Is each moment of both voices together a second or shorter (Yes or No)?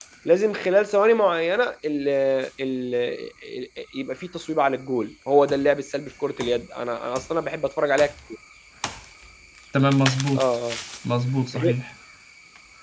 Yes